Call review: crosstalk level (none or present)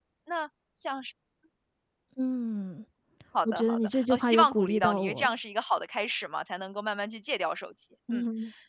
present